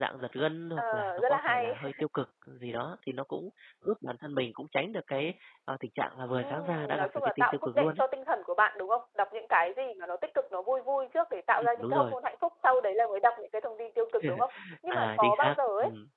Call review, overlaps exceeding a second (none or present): present